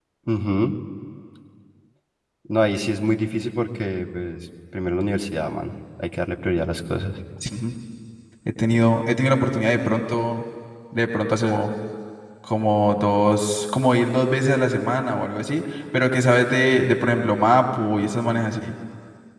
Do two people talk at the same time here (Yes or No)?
No